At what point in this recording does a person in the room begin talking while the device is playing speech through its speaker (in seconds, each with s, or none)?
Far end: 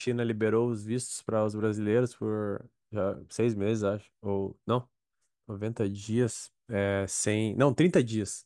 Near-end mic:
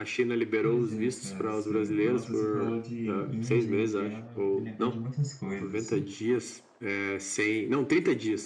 0.6 s